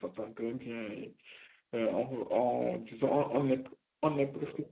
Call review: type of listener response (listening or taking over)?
listening